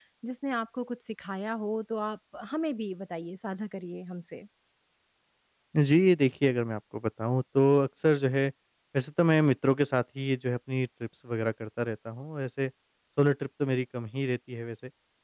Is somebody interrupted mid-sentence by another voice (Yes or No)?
No